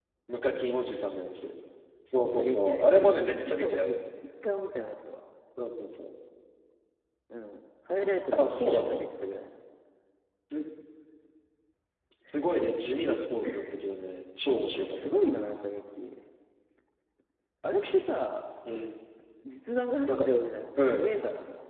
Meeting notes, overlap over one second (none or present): present